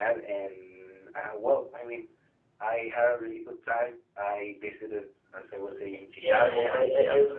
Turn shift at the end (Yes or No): Yes